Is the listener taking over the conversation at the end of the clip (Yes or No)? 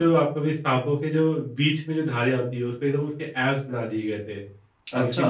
No